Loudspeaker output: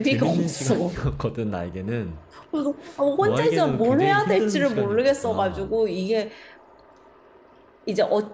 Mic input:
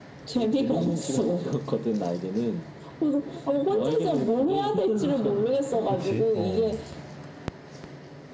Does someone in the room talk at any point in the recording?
Yes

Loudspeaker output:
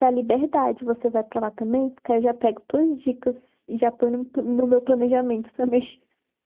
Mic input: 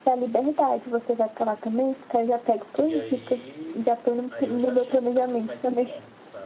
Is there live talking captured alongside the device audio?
Yes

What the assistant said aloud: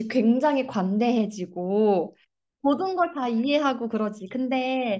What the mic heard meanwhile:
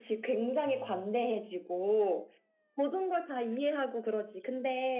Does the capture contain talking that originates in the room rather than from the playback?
Yes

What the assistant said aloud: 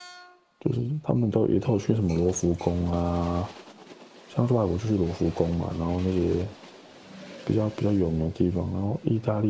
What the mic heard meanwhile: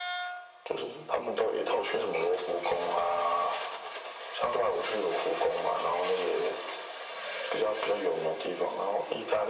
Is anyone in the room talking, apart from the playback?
No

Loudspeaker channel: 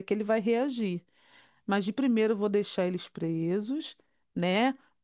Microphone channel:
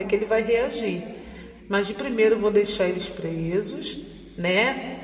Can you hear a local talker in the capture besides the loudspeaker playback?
No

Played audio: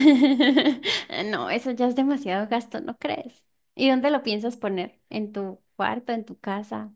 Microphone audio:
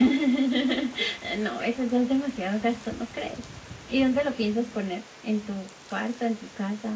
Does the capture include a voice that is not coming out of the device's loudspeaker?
No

